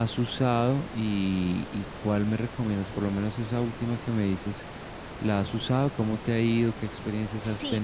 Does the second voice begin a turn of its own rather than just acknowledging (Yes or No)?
Yes